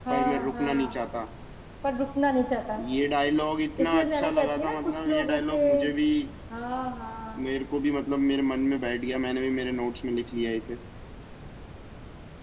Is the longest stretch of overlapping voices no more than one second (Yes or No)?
No